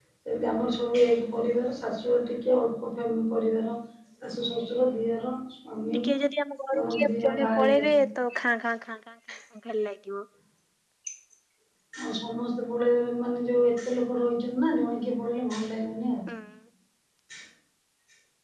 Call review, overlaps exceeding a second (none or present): present